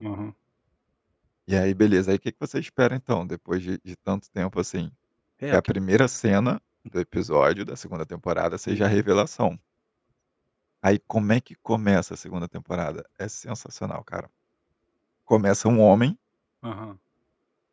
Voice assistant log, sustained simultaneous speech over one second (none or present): none